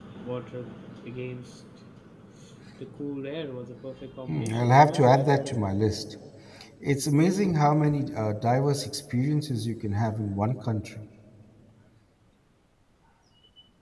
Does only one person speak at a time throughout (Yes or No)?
No